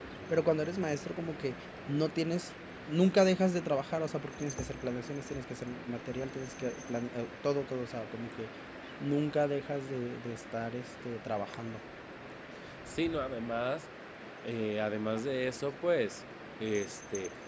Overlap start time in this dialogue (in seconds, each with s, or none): none